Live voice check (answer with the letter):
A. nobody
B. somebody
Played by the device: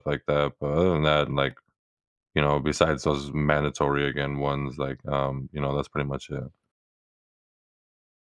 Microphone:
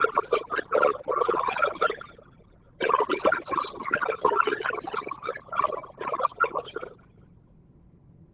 A